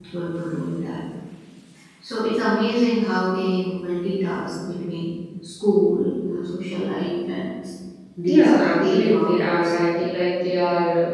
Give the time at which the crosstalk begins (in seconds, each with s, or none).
8.3 s